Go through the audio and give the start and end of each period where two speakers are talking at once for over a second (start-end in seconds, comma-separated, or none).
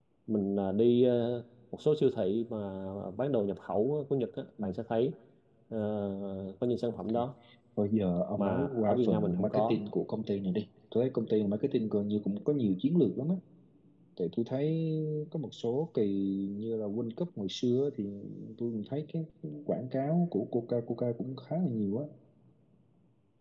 8.4-9.8